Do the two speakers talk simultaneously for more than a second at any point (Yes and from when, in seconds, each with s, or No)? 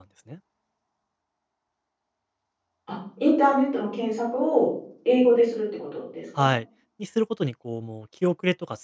No